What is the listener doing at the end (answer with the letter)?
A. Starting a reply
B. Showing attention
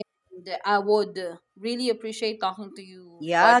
A